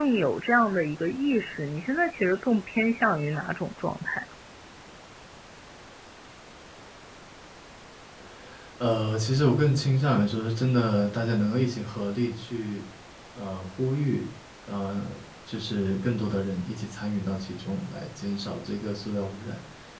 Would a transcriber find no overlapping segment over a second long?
Yes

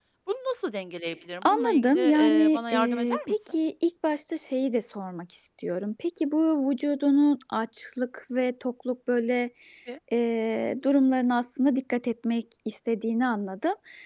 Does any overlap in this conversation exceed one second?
Yes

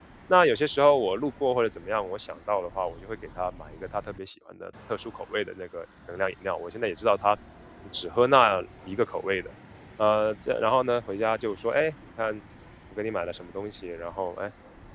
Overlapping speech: No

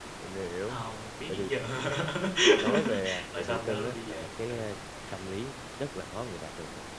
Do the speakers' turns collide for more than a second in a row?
Yes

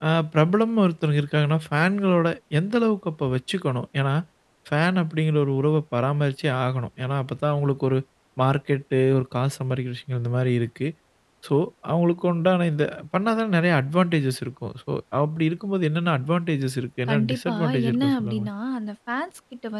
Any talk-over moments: Yes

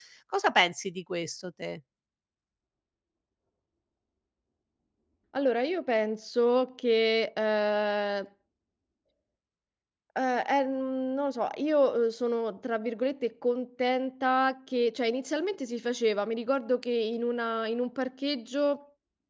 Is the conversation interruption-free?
Yes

